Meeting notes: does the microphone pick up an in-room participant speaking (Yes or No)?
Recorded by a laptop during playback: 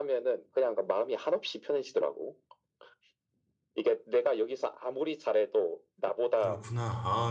Yes